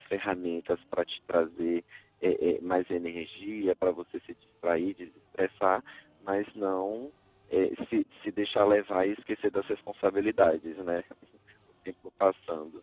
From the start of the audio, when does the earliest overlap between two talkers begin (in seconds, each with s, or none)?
none